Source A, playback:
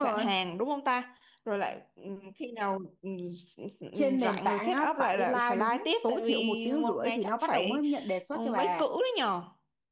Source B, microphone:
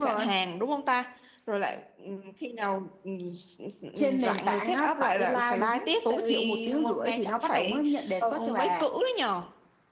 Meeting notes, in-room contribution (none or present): present